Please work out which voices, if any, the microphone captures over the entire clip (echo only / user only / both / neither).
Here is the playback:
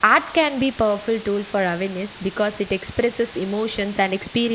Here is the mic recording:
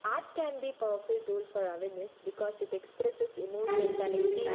both